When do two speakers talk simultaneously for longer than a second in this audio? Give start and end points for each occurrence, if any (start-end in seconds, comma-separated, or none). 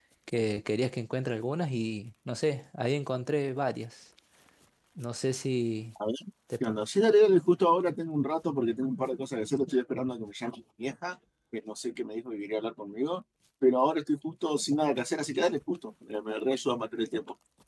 none